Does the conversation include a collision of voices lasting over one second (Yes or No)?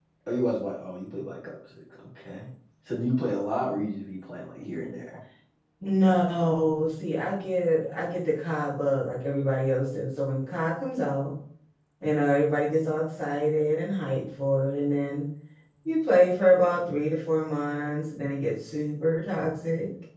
No